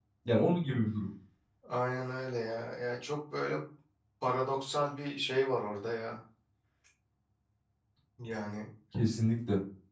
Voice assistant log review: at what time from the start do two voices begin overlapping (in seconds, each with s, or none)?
none